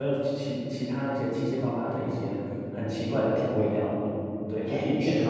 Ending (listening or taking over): taking over